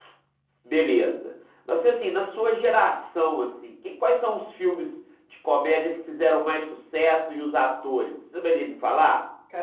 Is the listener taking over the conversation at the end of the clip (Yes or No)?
Yes